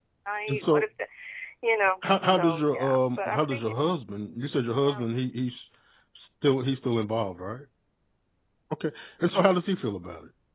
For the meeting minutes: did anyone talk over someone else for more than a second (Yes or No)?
Yes